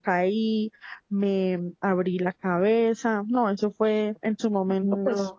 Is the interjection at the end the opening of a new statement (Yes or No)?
No